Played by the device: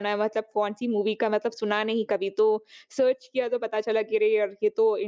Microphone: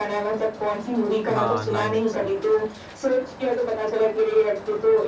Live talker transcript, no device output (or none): हाँ, 9XM